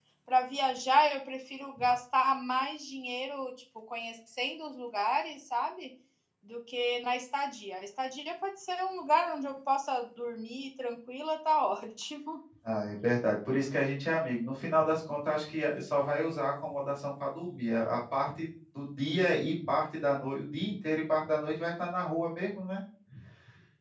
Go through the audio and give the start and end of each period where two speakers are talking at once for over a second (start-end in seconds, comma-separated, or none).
none